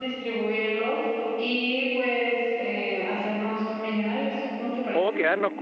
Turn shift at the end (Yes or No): Yes